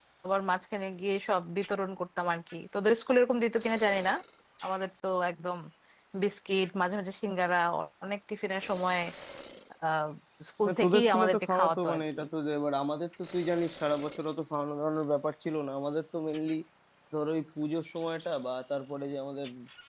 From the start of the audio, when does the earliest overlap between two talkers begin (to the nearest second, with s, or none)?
11 s